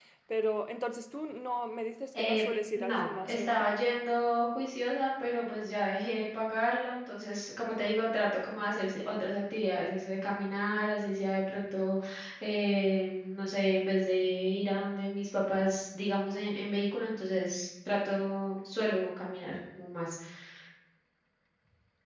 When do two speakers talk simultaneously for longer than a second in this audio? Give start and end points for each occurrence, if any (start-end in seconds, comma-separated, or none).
2.2-3.7